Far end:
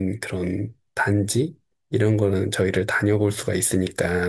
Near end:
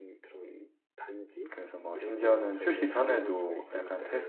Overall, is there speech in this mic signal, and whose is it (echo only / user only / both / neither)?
both